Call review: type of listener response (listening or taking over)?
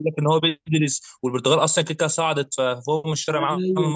taking over